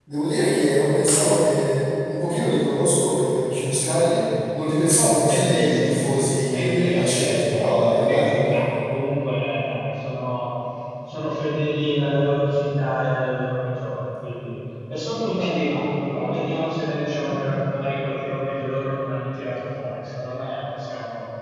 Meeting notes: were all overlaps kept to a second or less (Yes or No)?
No